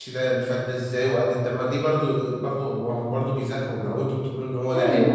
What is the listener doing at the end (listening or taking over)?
taking over